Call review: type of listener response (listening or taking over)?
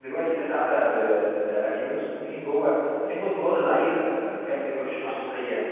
listening